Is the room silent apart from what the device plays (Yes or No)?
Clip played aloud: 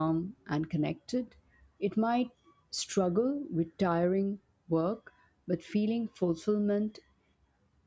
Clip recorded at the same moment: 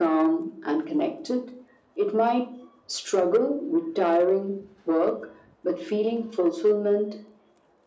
Yes